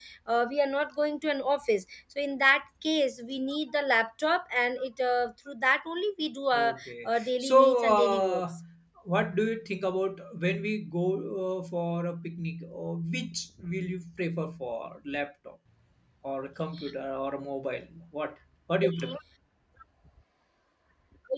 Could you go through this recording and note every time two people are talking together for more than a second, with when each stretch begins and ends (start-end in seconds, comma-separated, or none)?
6.5-8.4